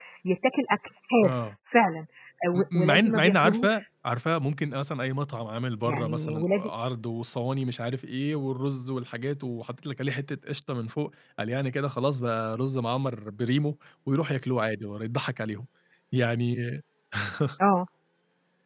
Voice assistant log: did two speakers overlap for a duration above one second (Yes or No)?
Yes